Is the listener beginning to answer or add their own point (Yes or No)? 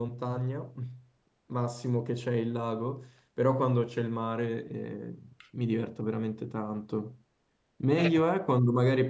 No